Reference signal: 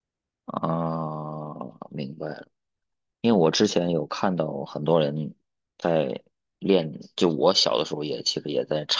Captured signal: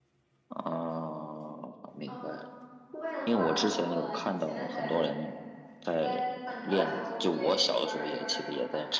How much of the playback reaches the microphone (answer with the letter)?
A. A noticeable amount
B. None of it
A